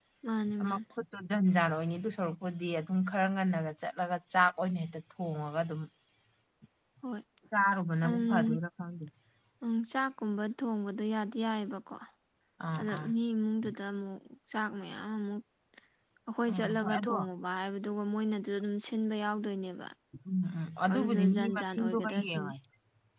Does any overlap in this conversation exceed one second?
Yes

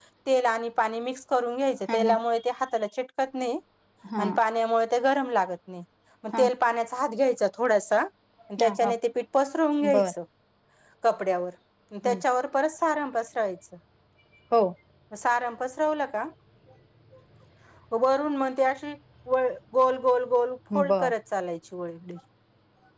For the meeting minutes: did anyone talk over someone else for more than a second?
No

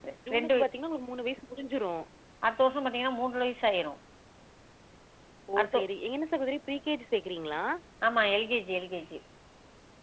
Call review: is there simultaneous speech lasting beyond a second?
No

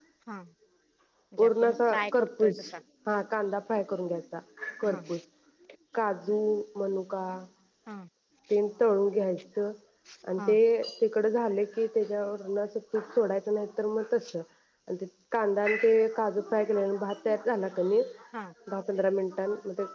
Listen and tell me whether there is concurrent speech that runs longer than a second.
Yes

